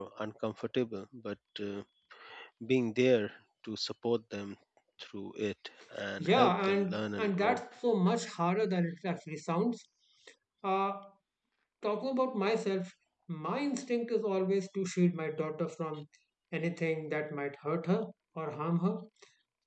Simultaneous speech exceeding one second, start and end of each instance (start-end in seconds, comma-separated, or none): 6.2-7.6